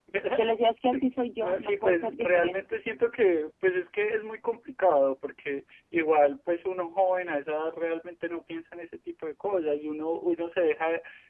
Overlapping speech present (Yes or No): Yes